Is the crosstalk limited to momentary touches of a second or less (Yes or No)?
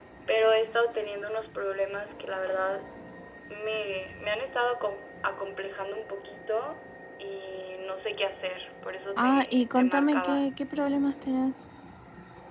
No